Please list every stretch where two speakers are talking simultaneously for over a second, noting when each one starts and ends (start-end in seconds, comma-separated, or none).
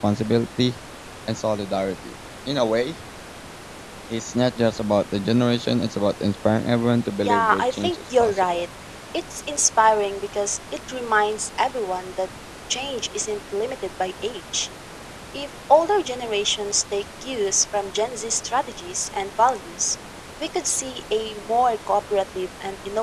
7.2-8.4